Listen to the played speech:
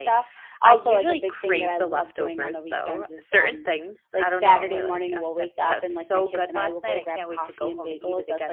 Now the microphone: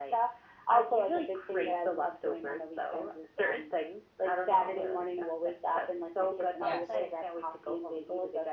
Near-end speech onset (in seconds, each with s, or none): 6.6 s